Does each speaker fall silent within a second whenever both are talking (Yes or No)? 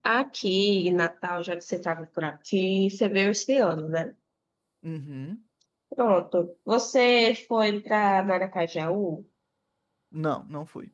Yes